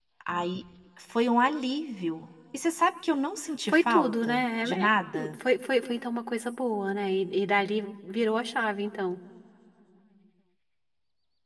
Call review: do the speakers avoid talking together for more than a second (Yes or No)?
No